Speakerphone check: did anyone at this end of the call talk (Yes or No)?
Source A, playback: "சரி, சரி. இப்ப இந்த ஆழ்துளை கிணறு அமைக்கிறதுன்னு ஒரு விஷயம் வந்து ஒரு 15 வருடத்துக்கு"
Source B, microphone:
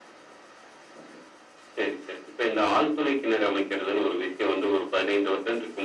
No